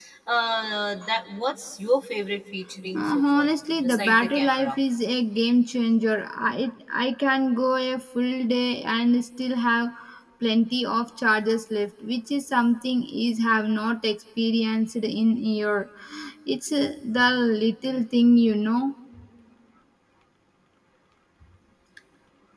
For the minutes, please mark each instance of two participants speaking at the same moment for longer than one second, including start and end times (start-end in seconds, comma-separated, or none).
2.9-4.8